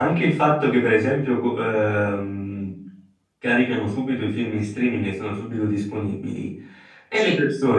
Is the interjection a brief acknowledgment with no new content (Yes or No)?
Yes